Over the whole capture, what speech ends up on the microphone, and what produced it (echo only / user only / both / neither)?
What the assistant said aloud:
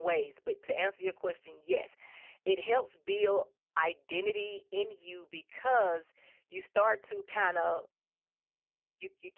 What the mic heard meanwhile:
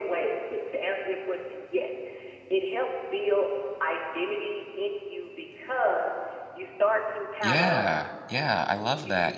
both